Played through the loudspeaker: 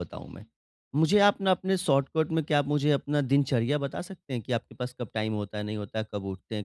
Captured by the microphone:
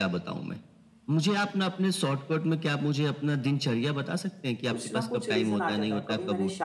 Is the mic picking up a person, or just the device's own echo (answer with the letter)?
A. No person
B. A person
B